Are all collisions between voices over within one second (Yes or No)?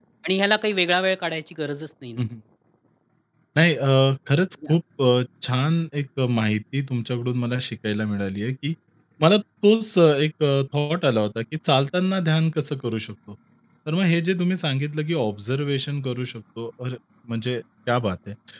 Yes